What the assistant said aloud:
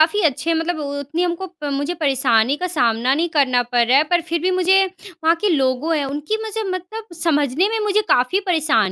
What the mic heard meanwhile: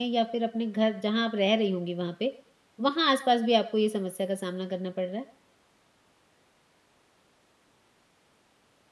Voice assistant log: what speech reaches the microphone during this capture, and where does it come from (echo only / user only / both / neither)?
user only